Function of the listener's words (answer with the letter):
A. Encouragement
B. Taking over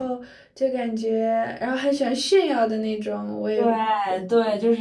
B